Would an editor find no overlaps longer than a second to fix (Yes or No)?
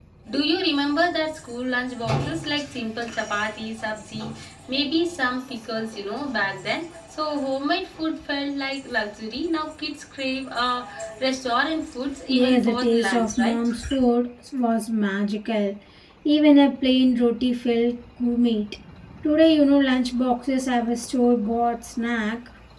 No